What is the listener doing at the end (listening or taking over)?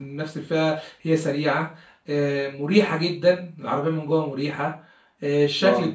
listening